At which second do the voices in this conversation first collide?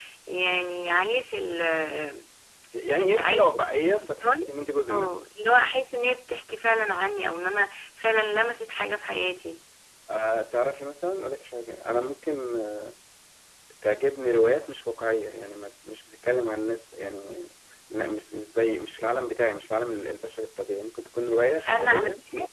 3.1 s

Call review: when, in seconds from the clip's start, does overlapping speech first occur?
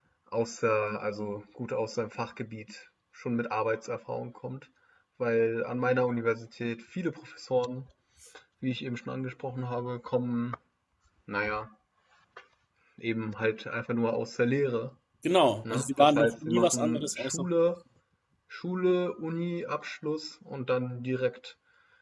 15.7 s

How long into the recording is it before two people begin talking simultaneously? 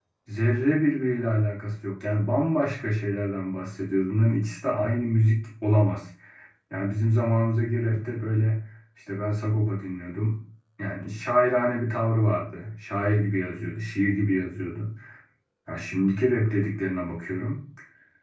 none

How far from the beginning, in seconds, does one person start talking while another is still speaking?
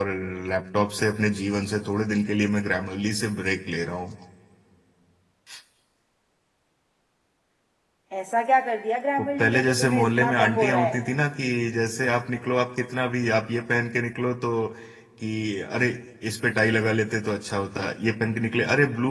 9.2 s

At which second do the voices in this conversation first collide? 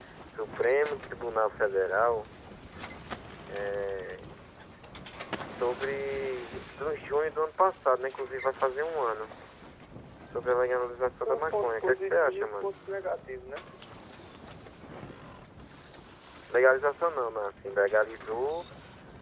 11.2 s

